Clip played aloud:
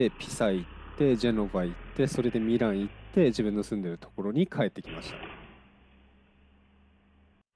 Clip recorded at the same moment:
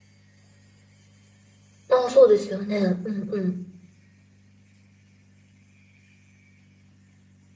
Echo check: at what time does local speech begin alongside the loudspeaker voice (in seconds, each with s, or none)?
1.9 s